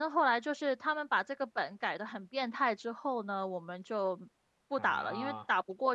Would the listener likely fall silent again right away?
Yes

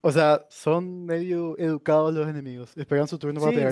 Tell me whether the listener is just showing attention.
No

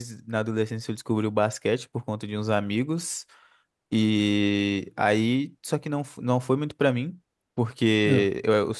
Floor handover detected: No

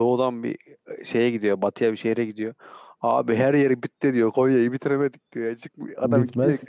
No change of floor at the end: Yes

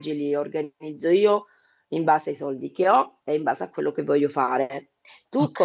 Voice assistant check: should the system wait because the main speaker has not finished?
Yes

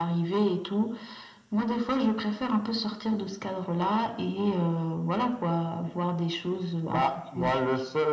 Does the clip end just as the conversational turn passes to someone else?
Yes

